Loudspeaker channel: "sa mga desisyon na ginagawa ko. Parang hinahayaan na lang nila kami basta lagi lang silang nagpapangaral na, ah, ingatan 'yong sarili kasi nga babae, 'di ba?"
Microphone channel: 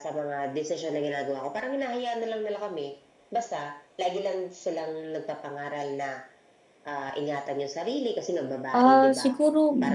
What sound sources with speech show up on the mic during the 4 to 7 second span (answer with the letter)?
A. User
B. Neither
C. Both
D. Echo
D